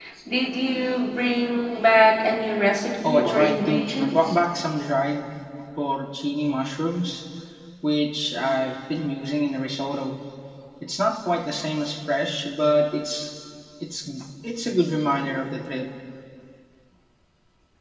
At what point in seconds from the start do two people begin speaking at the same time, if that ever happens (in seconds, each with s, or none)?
3.0 s